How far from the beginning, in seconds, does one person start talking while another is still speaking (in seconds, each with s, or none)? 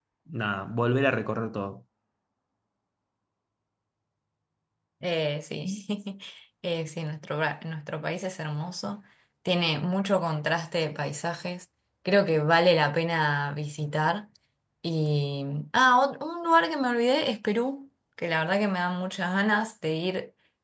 none